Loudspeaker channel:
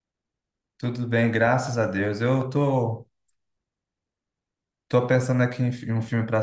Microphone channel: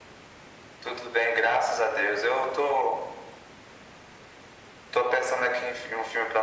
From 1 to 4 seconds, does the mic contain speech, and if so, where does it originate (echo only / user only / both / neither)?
echo only